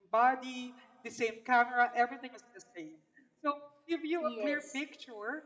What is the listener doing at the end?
listening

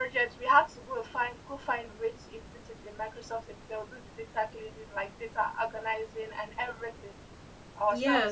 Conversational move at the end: taking over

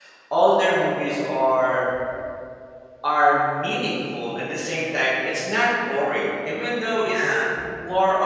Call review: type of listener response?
listening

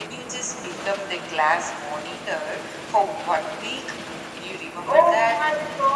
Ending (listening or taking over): taking over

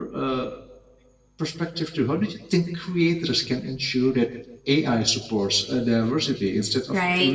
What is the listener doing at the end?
taking over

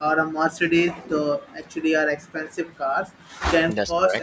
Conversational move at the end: listening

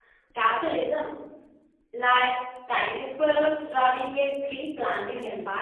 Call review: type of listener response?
taking over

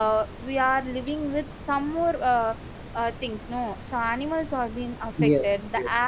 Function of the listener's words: listening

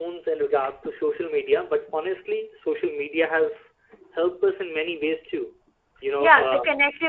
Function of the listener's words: taking over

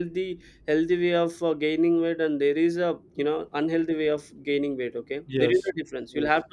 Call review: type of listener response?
taking over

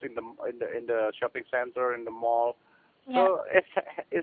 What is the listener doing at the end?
listening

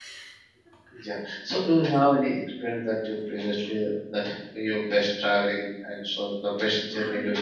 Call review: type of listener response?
taking over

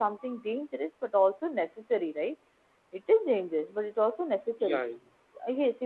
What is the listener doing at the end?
listening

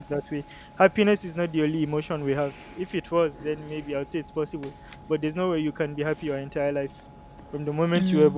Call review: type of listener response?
listening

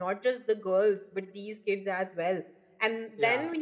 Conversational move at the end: listening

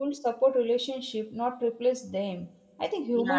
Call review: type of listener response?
listening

